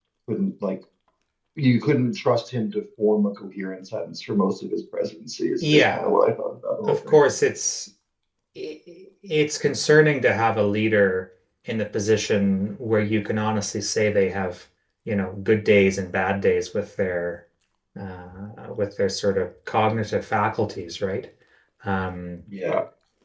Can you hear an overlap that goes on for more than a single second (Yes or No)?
No